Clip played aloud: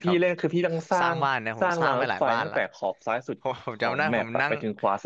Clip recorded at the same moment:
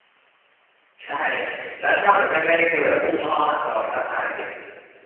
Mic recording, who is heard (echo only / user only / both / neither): user only